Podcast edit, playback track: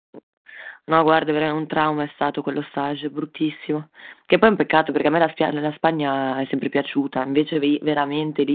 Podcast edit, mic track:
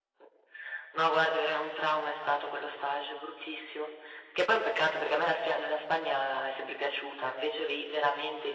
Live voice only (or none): none